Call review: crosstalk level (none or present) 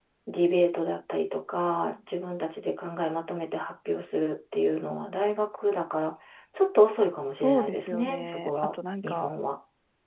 present